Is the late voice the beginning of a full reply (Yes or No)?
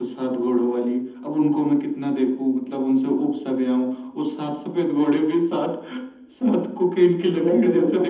Yes